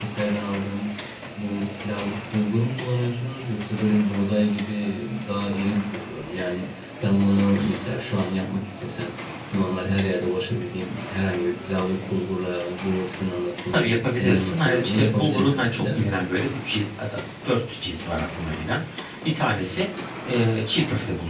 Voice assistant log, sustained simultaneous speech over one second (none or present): present